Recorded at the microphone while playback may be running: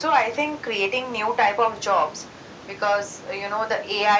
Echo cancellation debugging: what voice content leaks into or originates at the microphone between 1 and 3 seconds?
echo only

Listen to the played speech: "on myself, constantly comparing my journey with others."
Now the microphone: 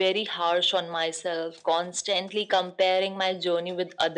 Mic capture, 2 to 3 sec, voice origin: echo only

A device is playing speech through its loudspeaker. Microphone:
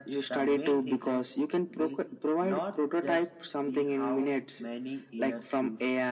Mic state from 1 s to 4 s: echo only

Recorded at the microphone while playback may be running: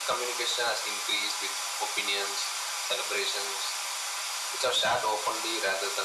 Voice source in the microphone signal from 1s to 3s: echo only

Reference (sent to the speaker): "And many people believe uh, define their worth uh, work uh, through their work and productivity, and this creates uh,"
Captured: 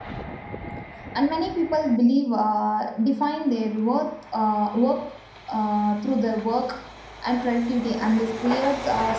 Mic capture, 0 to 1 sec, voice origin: neither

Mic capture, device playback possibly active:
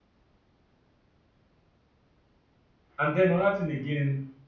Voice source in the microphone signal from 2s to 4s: user only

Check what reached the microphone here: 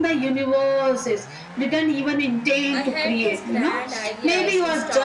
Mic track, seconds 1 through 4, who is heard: both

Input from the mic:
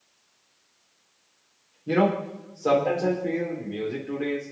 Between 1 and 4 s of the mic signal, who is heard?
user only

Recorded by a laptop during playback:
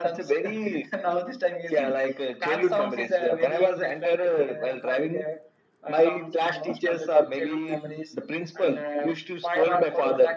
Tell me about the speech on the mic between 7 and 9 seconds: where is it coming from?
echo only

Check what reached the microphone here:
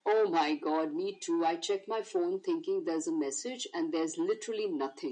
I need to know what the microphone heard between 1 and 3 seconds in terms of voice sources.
echo only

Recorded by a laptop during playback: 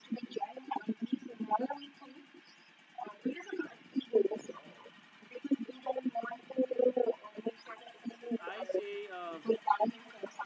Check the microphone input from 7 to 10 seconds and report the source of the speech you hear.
both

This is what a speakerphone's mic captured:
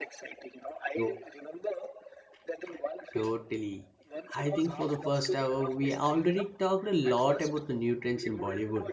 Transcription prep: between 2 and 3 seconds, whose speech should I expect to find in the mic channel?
echo only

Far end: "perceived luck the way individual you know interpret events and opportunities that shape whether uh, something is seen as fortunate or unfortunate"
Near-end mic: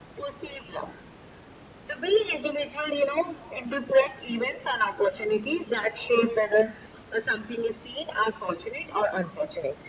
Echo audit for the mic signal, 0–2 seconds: echo only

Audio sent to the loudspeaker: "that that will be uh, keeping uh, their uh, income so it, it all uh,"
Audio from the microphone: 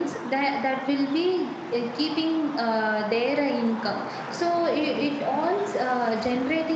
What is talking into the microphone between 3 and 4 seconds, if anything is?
echo only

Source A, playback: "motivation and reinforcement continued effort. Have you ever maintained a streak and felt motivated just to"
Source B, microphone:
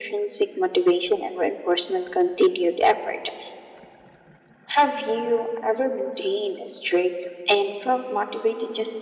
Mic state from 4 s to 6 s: echo only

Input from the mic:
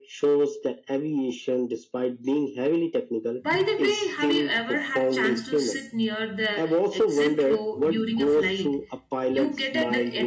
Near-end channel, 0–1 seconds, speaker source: echo only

